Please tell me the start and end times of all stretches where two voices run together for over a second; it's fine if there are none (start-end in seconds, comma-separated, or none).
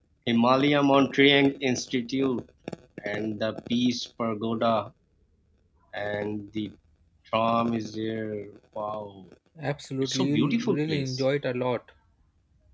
10.0-11.2